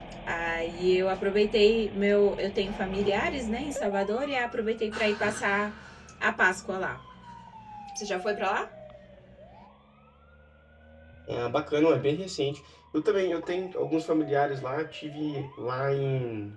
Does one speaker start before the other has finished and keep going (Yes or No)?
No